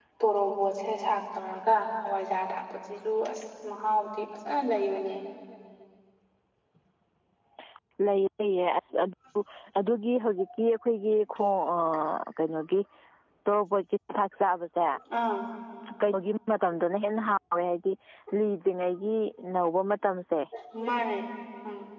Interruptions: none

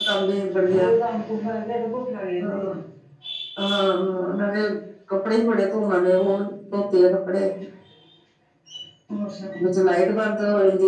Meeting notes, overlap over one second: none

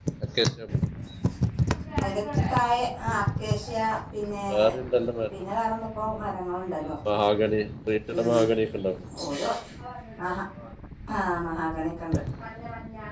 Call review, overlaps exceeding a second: none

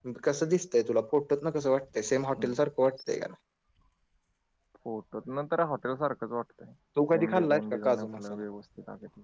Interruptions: present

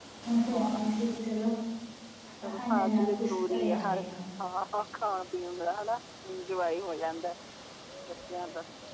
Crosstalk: present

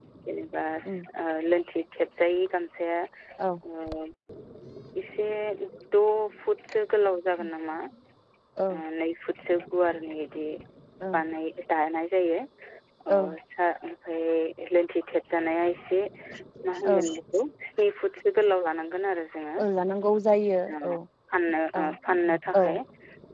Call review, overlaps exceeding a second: none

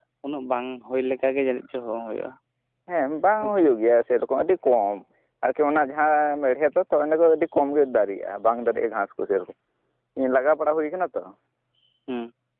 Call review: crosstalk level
none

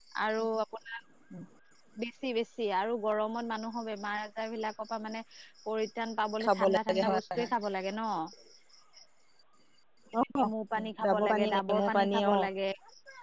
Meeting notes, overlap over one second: present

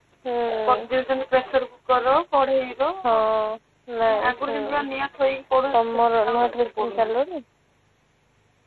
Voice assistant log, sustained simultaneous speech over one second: present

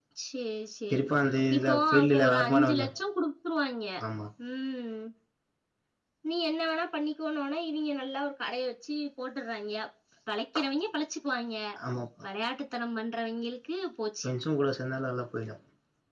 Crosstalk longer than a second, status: present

